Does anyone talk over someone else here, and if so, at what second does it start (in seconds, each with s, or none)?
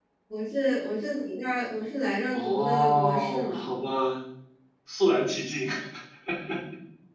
2.3 s